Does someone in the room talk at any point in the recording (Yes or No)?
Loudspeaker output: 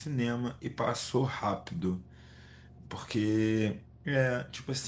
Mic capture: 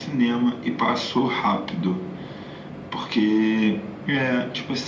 No